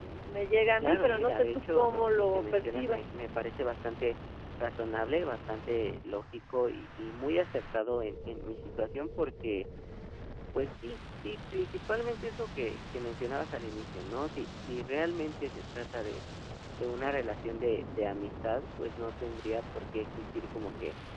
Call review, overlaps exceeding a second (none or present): present